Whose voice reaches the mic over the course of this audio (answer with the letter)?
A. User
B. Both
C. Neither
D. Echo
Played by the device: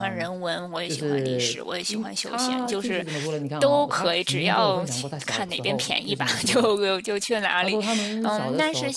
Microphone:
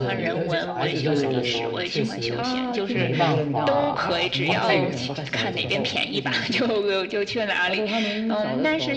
B